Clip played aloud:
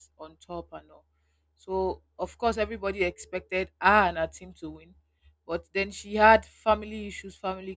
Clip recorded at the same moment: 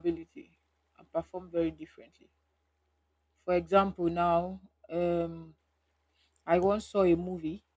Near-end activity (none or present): present